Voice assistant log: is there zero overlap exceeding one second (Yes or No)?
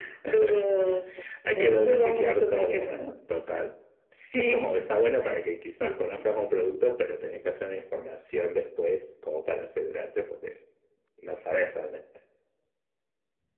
No